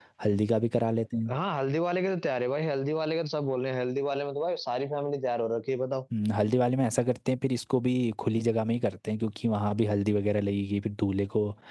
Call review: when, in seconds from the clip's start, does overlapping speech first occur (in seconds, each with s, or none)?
none